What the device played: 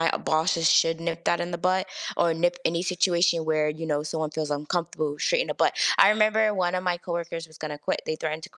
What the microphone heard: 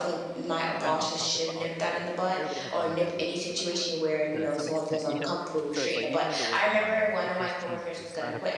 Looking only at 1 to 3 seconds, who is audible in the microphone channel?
both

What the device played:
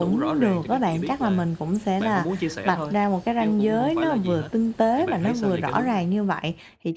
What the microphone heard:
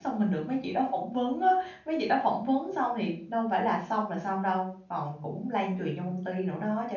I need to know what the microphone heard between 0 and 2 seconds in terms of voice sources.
user only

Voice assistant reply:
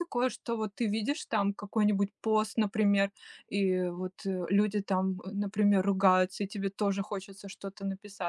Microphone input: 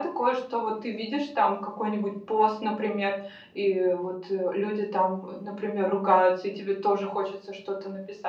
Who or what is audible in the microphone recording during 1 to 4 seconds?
echo only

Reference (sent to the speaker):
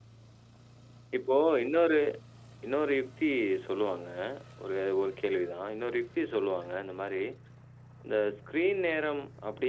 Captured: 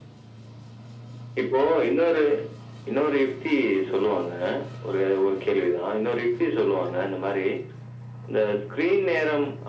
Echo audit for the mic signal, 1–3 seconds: echo only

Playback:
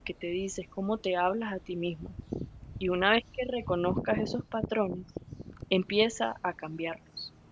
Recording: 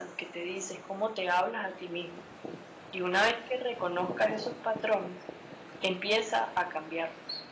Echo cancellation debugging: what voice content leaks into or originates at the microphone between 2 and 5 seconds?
echo only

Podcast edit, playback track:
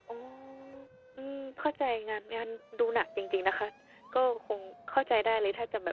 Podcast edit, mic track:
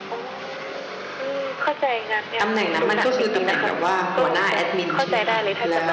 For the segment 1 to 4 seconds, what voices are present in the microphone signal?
both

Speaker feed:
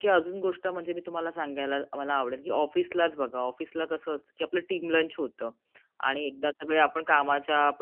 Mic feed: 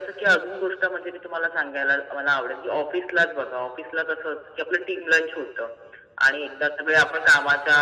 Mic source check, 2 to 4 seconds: echo only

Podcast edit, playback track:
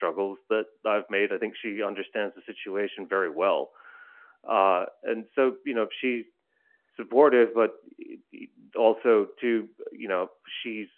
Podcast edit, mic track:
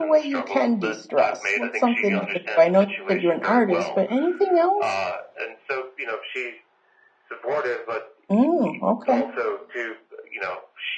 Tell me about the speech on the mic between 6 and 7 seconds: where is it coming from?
echo only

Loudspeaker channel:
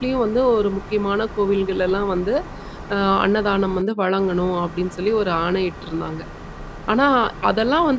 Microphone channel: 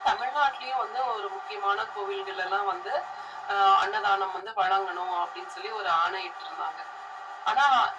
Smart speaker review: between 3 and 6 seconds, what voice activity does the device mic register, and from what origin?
echo only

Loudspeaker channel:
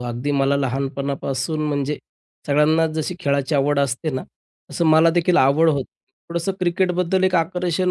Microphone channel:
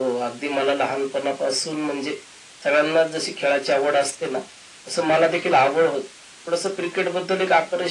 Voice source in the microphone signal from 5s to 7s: echo only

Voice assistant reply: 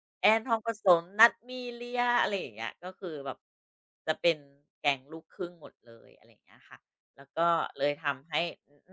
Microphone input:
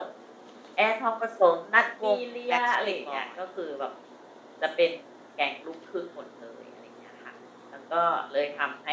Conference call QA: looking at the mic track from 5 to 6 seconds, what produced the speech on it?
echo only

